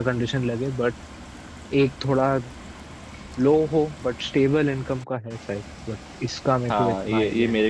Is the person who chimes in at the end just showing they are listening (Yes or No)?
No